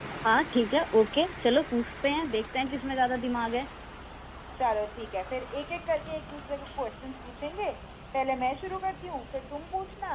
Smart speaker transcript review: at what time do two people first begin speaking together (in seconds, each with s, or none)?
none